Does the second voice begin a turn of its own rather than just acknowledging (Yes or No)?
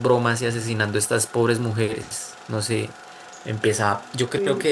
No